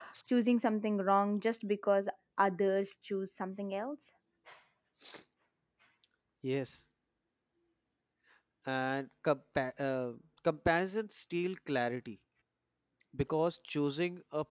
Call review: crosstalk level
none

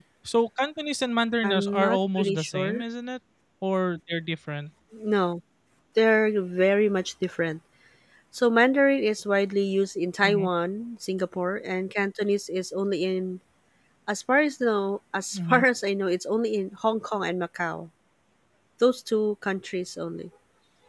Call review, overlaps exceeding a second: present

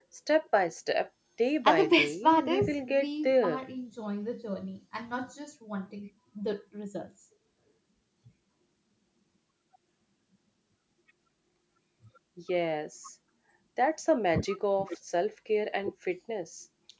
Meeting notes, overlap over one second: present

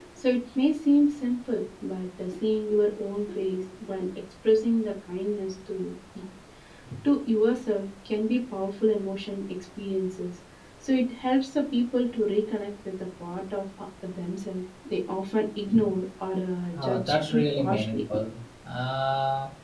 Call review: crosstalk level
present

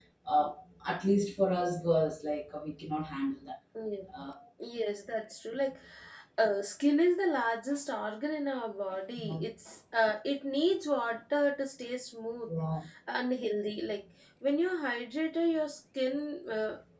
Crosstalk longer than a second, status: none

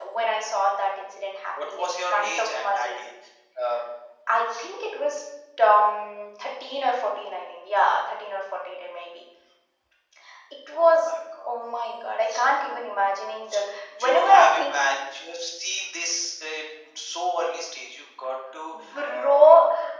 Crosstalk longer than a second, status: present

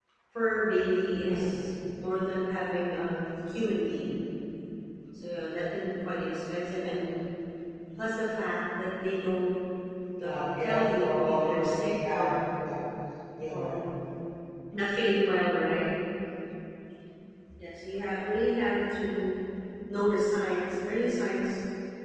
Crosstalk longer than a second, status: present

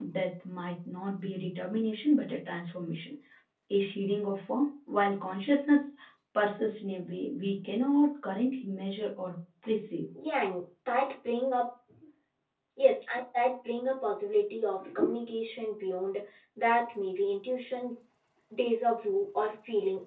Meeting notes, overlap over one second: none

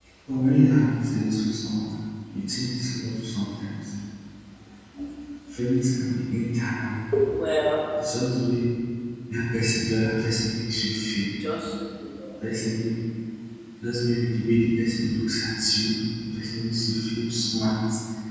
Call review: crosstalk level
none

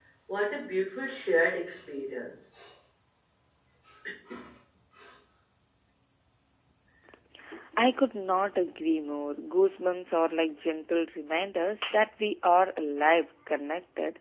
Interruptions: none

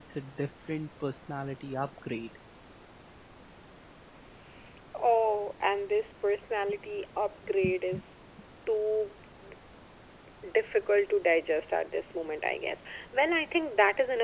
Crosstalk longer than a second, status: none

